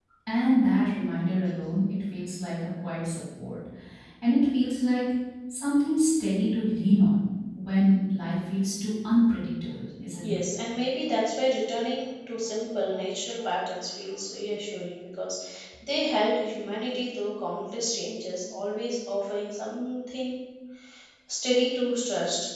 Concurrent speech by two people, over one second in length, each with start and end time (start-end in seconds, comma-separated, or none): none